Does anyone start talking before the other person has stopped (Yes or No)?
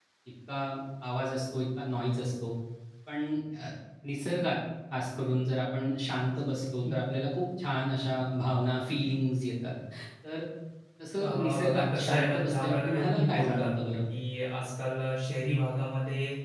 Yes